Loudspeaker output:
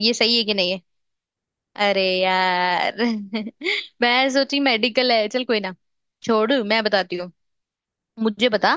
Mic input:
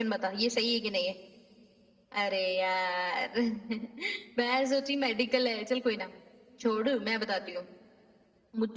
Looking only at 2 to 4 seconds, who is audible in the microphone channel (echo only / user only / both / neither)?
echo only